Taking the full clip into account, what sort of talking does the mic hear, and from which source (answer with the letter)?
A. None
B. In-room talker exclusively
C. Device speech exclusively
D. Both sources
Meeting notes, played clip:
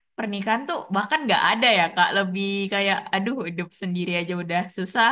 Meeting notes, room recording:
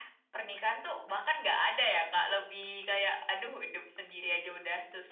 C